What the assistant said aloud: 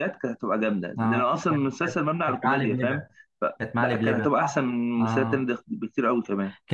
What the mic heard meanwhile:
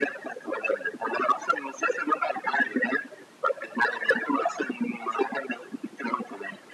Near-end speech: none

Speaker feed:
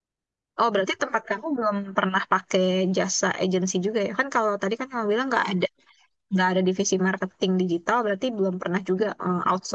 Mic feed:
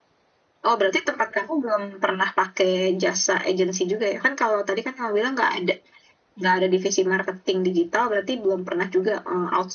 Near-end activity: none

